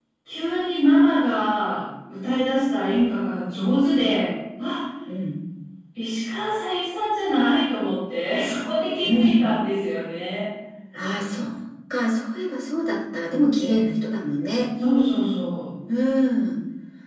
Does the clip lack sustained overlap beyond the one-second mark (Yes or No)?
Yes